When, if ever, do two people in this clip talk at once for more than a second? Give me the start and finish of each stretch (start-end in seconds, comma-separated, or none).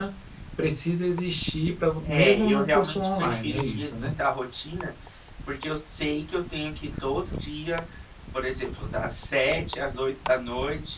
2.0-4.1